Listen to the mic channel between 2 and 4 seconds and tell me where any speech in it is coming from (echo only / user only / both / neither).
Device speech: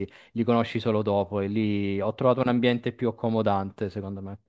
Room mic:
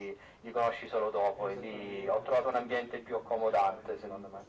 both